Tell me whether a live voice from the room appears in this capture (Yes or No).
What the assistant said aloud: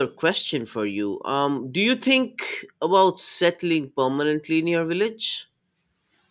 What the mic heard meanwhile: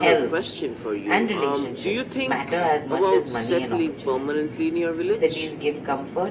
Yes